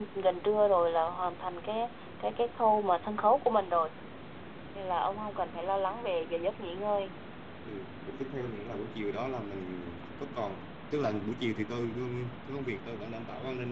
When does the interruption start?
none

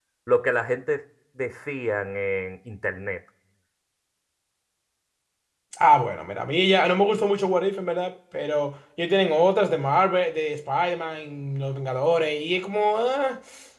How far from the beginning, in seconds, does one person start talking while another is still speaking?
none

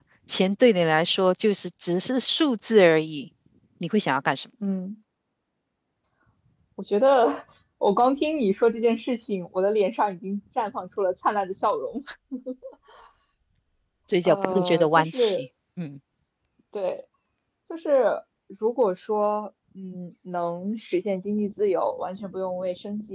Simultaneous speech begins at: 14.2 s

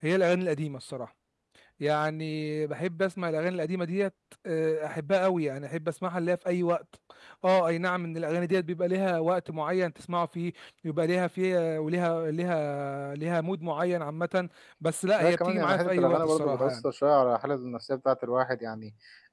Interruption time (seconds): 15.2 s

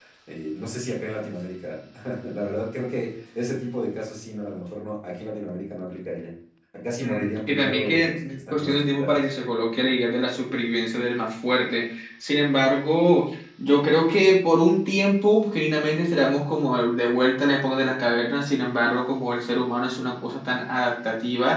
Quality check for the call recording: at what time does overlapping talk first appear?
7.0 s

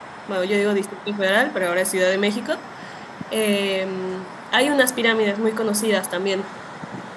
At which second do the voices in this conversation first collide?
none

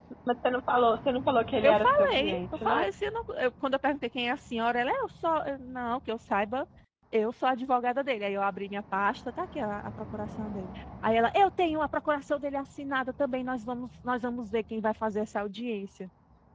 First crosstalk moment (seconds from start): 1.6 s

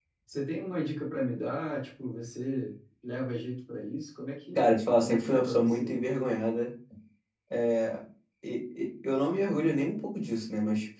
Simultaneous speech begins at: 4.5 s

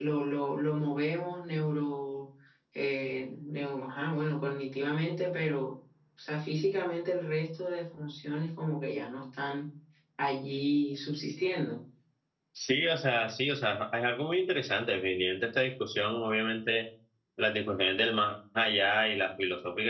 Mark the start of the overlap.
none

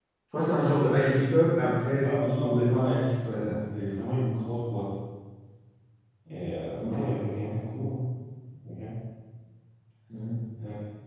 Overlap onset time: 2.0 s

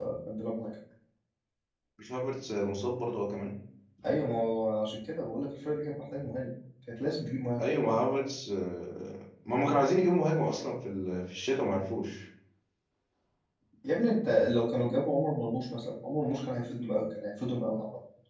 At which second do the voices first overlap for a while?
none

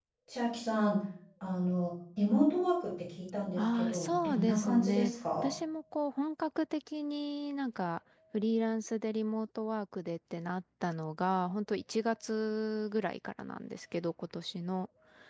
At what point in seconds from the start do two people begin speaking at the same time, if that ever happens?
3.6 s

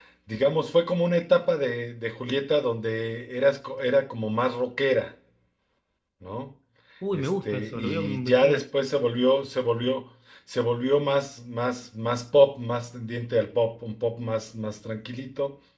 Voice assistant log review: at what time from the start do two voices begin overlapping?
7.1 s

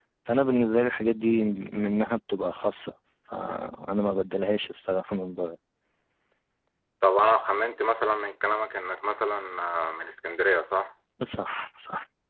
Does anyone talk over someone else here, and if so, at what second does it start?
none

